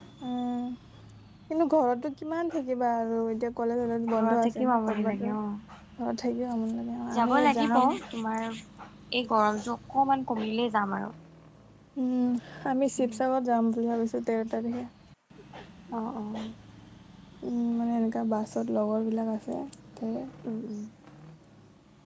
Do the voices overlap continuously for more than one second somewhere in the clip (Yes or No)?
Yes